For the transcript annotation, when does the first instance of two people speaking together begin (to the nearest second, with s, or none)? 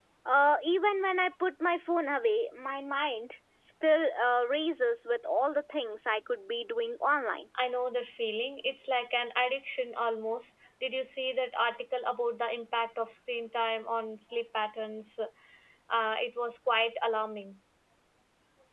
none